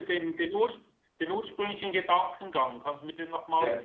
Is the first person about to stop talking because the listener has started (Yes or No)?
Yes